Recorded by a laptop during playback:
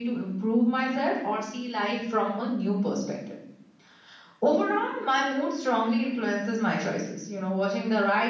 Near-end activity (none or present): none